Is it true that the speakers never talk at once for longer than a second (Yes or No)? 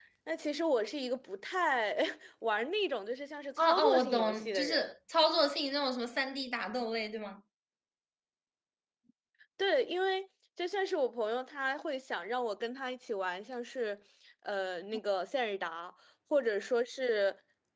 No